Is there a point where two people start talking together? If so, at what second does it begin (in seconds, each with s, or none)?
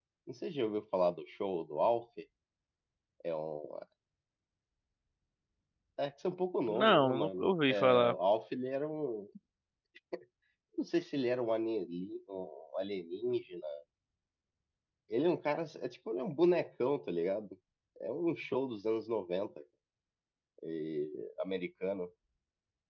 6.7 s